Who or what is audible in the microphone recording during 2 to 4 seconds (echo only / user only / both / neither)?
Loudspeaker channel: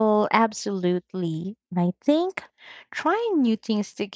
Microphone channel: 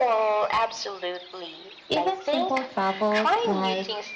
both